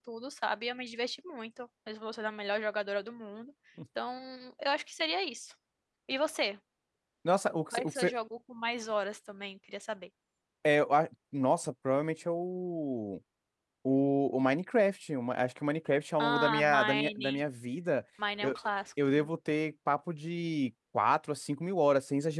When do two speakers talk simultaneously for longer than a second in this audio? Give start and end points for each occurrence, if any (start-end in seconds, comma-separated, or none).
16.2-17.4